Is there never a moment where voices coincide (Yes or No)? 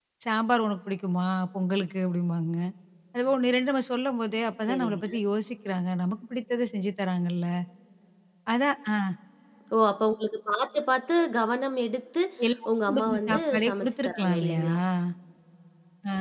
No